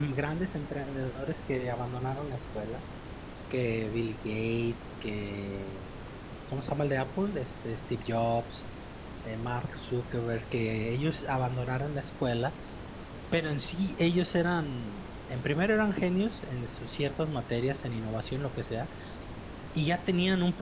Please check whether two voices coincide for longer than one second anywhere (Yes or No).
No